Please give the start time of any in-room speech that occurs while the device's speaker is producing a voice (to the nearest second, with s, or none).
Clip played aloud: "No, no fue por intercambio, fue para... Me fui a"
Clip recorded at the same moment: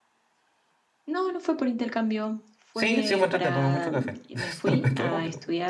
3 s